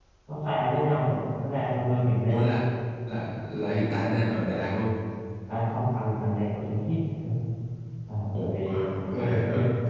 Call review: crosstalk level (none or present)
present